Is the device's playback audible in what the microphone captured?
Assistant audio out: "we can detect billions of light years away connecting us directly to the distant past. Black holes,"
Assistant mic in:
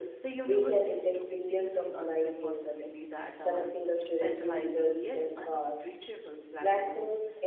Yes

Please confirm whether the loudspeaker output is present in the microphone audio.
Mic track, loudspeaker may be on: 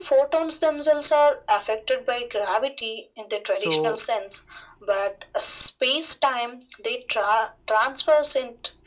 Yes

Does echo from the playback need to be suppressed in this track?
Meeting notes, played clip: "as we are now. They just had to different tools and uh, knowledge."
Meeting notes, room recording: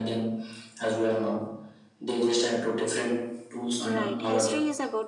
Yes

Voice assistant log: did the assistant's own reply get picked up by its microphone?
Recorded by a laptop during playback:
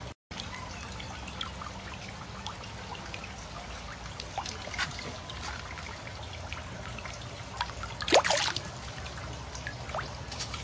No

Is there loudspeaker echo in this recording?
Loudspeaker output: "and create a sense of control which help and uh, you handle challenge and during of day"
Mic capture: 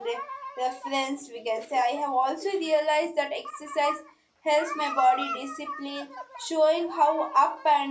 No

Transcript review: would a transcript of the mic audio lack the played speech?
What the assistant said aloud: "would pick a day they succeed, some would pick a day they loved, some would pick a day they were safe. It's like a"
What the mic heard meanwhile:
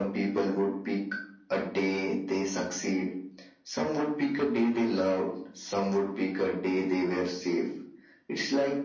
No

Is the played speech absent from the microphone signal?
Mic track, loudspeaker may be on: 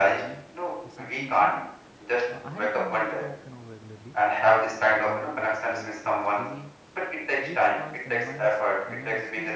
No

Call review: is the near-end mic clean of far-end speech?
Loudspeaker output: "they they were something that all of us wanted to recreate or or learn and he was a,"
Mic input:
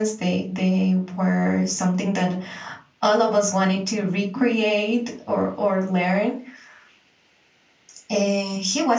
No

